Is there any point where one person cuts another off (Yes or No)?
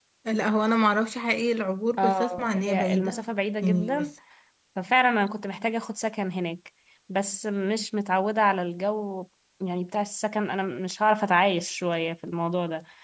Yes